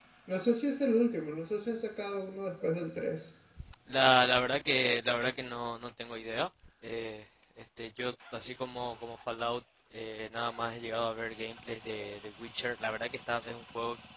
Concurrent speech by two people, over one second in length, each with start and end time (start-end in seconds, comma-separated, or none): none